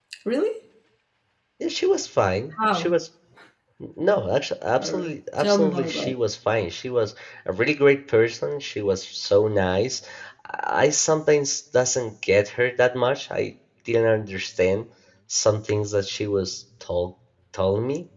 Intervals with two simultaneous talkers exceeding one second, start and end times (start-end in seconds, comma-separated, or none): 4.8-6.1